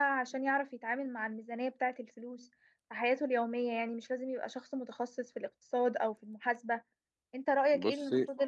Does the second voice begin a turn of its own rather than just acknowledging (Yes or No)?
No